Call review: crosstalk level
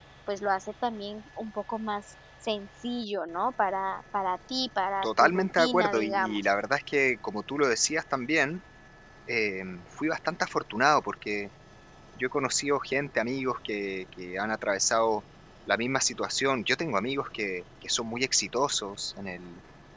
present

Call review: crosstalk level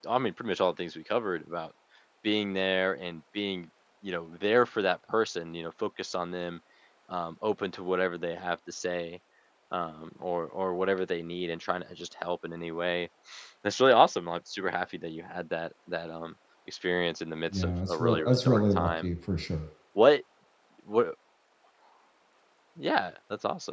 present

